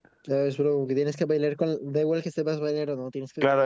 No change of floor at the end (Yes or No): No